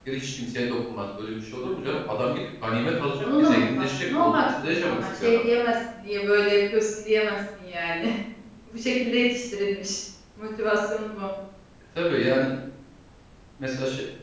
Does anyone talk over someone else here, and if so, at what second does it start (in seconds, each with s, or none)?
3.2 s